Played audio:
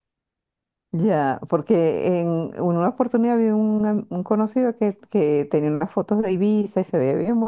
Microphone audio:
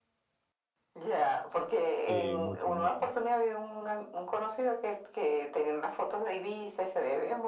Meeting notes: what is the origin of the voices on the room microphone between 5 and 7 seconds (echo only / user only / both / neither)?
echo only